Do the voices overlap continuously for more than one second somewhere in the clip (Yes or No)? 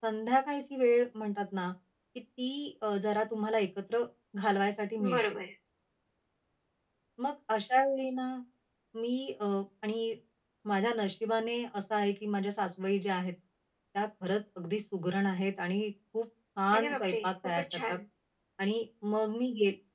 Yes